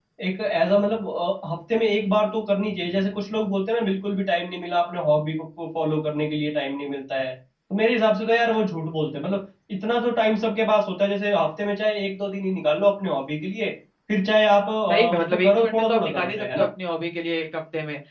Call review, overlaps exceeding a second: present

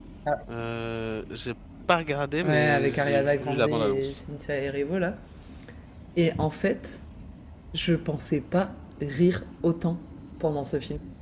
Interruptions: present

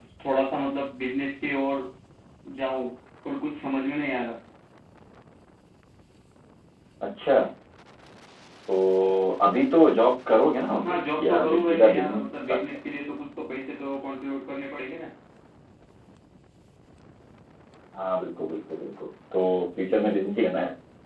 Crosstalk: present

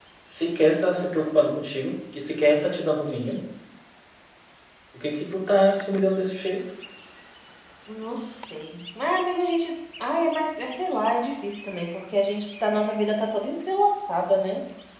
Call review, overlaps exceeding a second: none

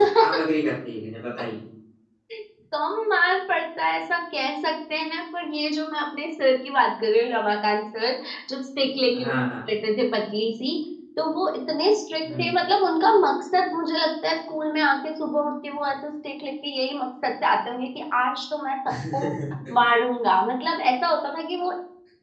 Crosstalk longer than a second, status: none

